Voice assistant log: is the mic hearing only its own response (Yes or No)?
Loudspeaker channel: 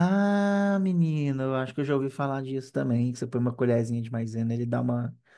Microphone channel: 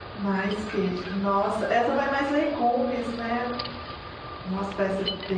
No